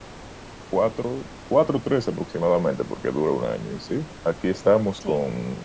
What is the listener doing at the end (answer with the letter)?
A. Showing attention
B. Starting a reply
A